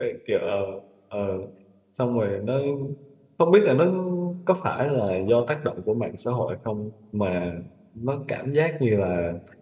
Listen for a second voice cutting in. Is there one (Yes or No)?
No